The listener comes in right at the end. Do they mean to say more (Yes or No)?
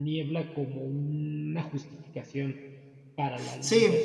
Yes